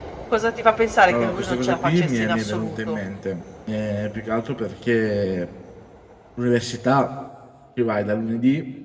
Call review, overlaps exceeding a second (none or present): present